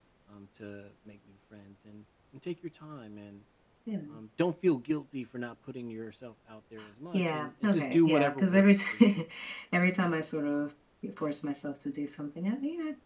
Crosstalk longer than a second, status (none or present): present